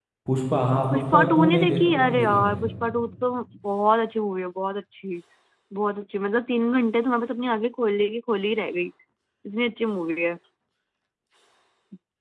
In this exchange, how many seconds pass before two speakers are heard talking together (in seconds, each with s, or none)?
0.9 s